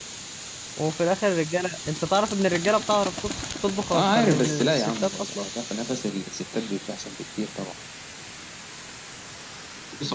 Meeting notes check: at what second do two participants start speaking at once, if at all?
3.9 s

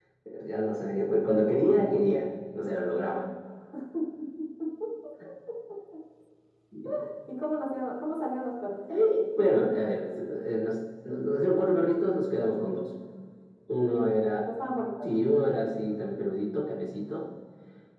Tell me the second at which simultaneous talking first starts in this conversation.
none

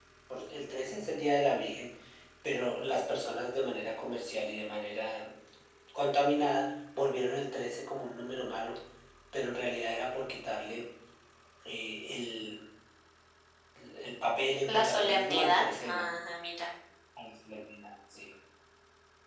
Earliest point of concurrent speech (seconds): 14.6 s

